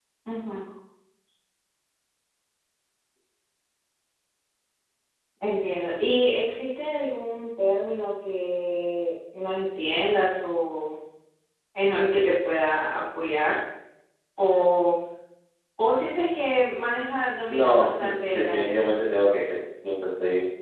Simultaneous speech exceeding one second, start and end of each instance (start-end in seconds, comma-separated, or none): 17.5-18.7